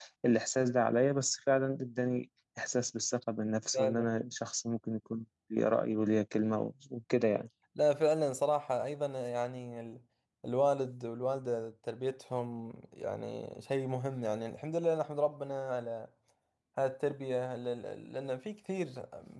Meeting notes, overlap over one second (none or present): none